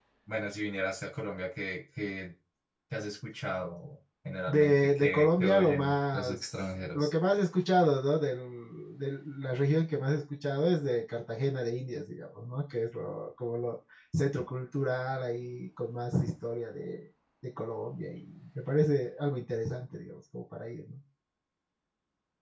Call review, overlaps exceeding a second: present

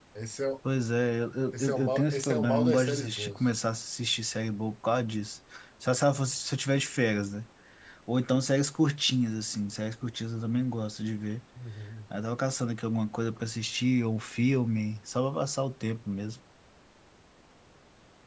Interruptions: present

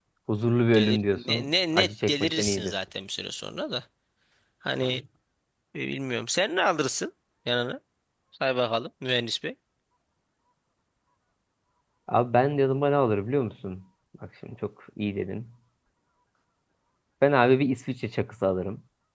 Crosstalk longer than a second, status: present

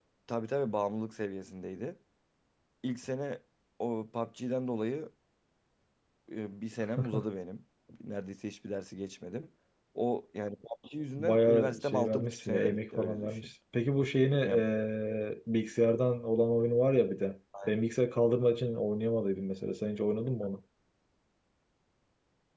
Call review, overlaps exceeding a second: present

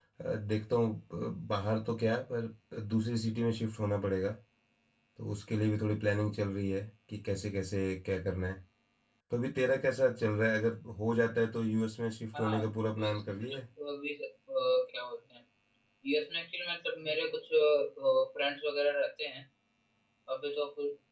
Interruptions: present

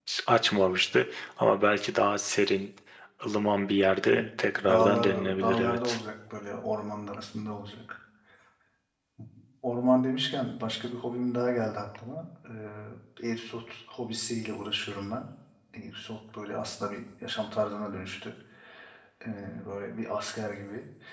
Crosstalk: present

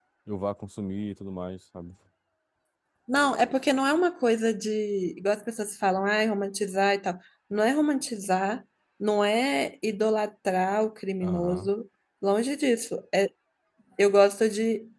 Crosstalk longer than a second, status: none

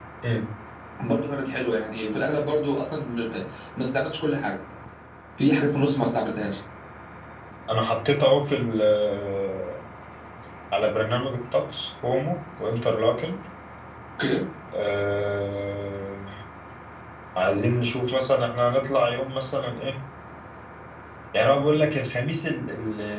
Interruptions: none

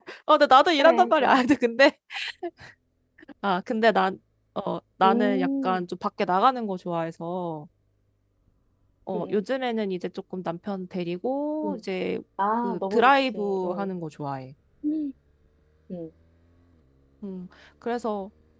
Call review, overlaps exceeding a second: present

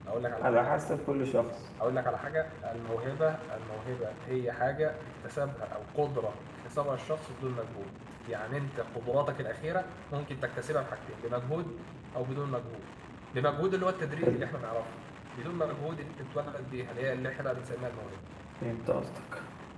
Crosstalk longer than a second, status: none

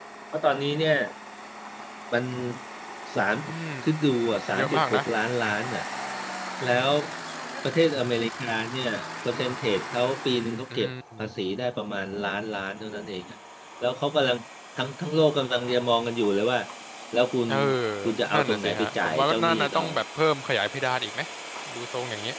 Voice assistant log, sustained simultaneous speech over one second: present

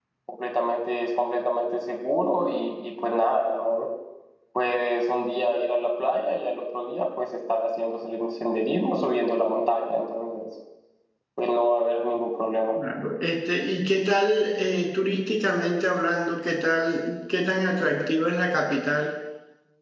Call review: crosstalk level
none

